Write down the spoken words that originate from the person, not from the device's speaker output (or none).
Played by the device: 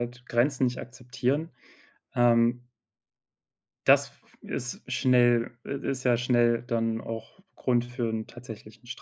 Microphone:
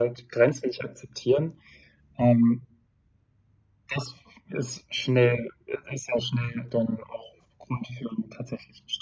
none